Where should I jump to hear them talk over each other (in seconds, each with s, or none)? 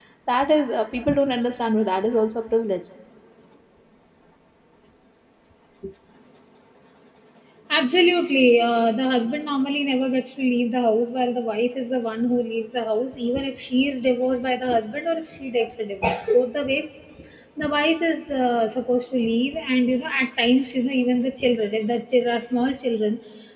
none